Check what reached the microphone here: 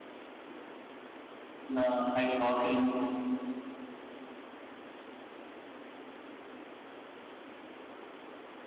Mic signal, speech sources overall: user only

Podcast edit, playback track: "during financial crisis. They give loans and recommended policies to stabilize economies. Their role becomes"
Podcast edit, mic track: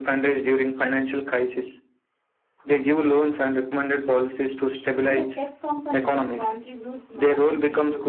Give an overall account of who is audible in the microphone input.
both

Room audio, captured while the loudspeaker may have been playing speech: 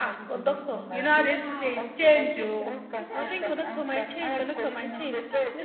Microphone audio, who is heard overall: both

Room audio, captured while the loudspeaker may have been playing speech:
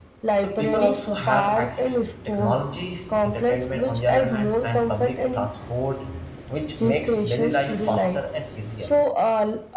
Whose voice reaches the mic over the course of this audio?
both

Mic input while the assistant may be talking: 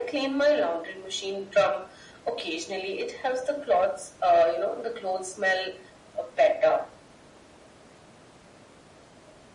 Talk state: echo only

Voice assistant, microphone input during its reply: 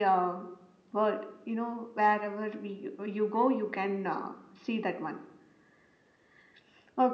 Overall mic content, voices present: echo only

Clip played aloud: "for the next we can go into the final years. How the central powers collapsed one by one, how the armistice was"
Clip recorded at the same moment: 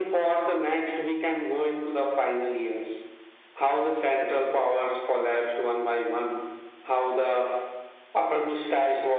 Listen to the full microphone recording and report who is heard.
echo only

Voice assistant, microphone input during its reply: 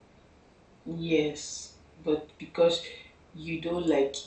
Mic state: user only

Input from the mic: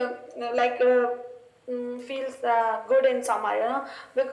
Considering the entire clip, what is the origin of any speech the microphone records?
echo only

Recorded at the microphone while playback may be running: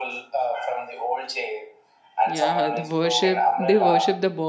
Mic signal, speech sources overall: both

